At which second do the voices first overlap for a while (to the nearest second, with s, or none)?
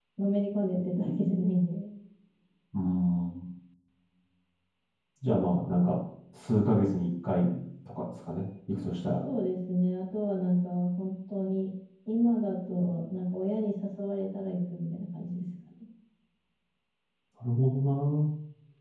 none